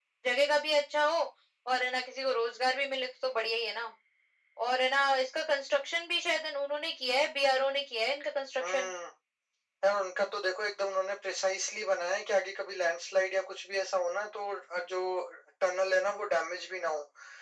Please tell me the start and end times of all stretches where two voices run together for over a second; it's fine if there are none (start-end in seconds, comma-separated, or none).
none